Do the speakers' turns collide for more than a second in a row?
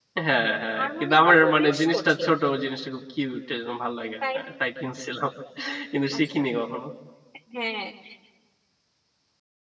Yes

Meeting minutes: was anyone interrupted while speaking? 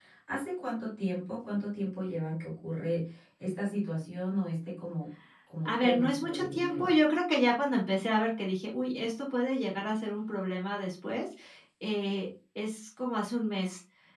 Yes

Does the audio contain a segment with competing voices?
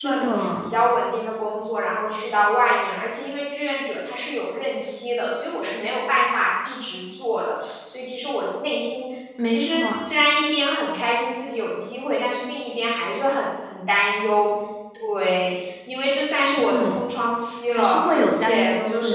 Yes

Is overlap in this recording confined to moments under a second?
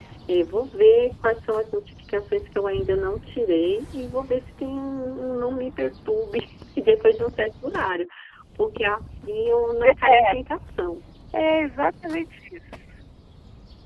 Yes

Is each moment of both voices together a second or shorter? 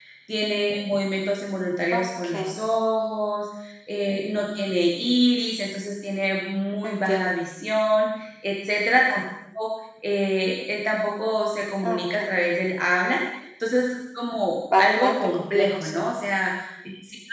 No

